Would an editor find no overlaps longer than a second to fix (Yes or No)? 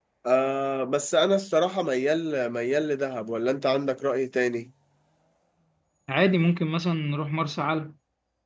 Yes